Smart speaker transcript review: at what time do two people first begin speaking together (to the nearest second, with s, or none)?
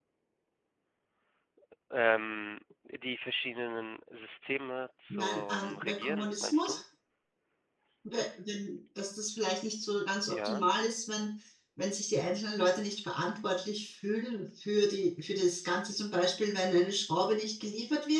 5 s